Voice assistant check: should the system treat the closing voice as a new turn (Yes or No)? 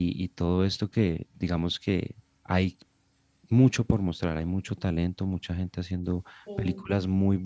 No